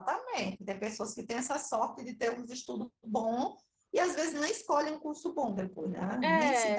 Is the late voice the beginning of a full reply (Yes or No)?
No